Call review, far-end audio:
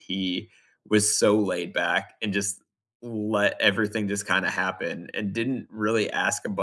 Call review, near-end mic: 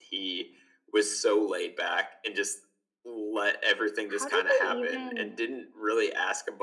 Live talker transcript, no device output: How did they even

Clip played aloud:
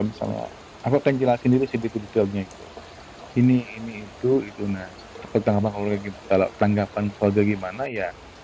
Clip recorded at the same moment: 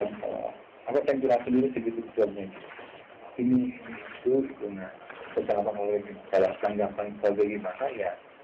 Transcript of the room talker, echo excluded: none

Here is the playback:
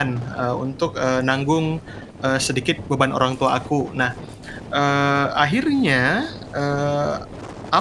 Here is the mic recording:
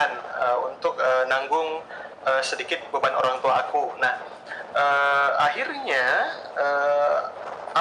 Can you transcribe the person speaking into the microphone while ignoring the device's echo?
none

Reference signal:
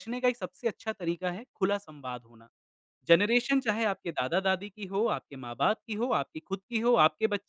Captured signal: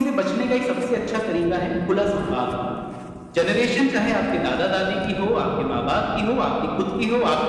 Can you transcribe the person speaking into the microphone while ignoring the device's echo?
none

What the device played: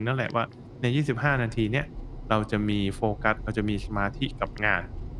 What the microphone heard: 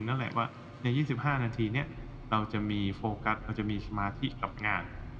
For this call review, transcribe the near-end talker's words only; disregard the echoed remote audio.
none

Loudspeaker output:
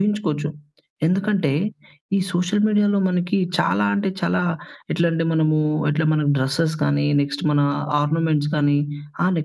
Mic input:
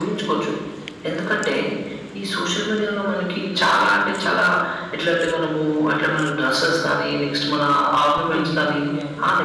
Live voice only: అంటే, నేను ఇప్పుడు గాదు.

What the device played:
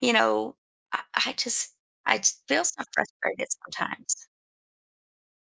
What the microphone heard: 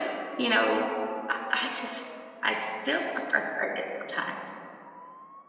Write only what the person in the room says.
none

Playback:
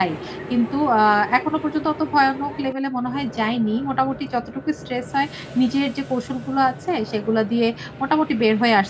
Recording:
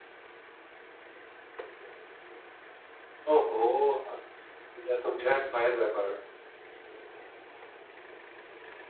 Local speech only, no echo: ওহো! হা এটা তো বিরাট ভয়ের ব্যাপার।

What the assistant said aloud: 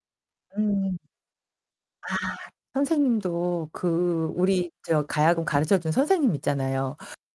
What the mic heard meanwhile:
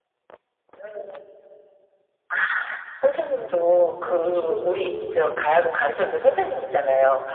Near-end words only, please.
어 그렇죠 그렇죠.

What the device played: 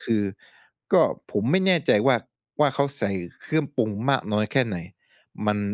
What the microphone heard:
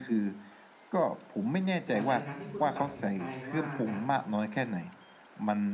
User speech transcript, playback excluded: ฉะนั้นแล้วการที่คุณตัดสินใจว่า จะ

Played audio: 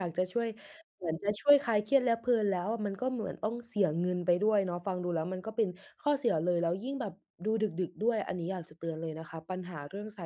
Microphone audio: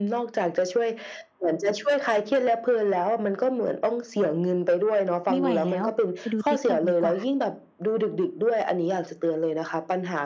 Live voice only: ไม่ไหวแล้ว ไปดูติ๊กต๊อกดีกว่า

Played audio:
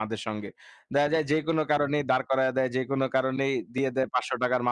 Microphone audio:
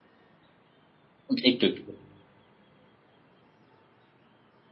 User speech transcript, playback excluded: উম একটু, একটু

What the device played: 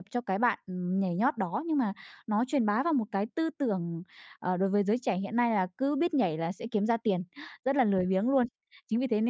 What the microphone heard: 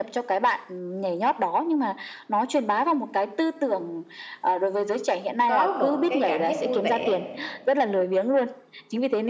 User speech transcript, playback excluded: có một cái cảm giác vui vẻ,

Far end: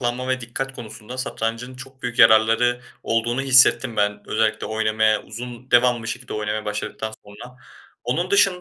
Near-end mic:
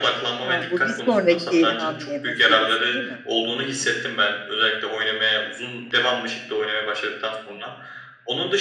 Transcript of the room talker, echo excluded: Ha, bu bir sonraki hamle meselesi, değil mi? Hı hı.

